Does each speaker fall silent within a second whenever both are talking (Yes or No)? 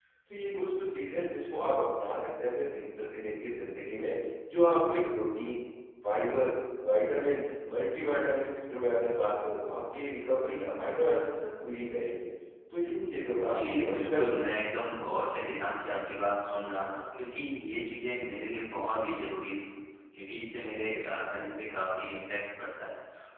No